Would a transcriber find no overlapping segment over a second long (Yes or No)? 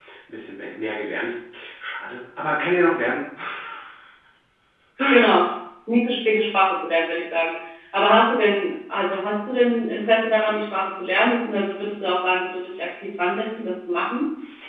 Yes